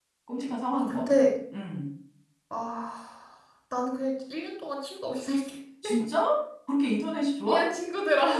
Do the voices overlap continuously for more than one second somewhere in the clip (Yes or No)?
No